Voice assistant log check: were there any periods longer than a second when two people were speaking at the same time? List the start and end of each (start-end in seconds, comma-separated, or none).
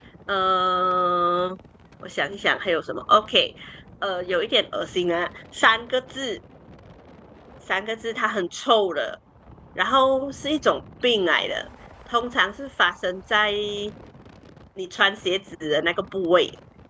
none